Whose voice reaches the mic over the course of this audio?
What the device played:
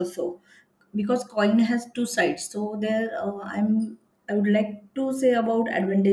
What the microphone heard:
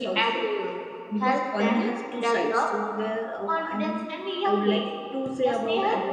both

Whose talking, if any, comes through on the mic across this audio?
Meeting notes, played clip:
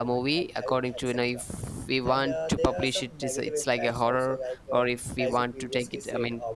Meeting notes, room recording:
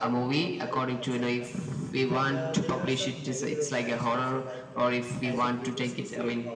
echo only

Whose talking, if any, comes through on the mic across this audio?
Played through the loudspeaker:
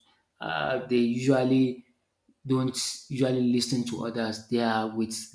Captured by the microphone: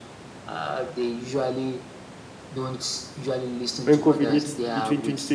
both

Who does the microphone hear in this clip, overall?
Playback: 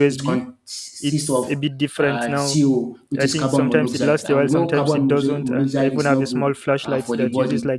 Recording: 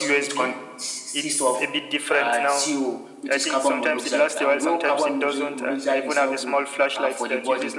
echo only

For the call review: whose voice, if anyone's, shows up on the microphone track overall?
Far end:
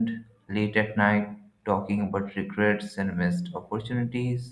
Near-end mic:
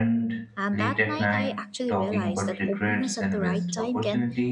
both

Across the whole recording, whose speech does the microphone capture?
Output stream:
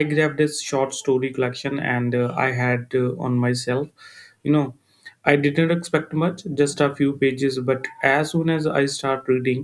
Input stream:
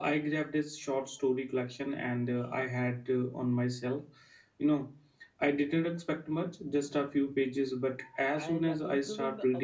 both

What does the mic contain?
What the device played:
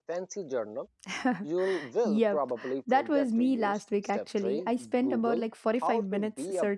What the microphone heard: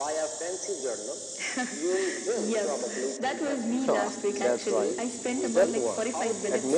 both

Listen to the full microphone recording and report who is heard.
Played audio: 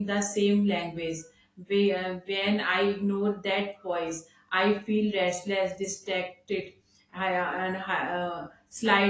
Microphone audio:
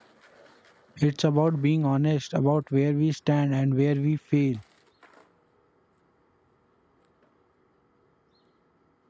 user only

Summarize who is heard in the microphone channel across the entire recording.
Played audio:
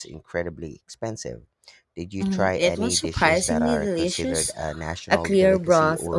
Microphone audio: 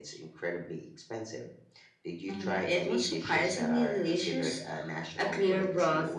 echo only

